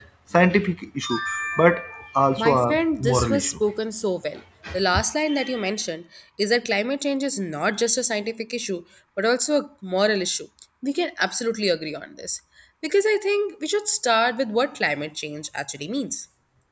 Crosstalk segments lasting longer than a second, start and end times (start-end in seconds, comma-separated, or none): 2.4-3.6